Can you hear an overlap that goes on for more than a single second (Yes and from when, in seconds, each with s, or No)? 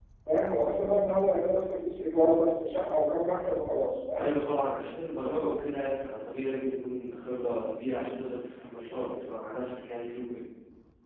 No